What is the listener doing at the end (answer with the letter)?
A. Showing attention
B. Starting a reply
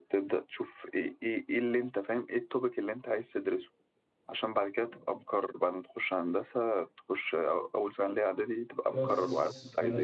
B